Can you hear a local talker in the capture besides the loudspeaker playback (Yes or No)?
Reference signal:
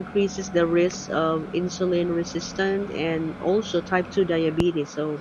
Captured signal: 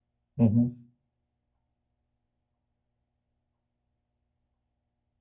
Yes